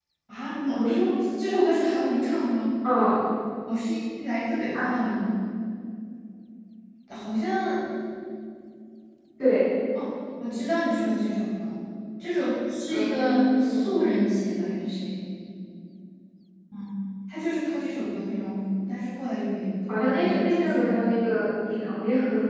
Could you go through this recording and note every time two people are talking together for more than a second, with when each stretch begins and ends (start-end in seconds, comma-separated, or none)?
12.9-14.1, 19.9-21.2